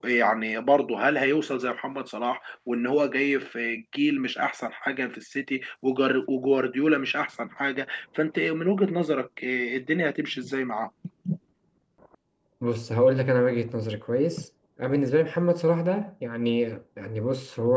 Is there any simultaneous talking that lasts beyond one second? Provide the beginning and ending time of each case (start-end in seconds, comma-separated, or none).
none